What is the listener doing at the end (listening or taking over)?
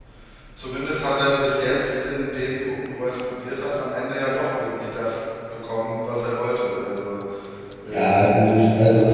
taking over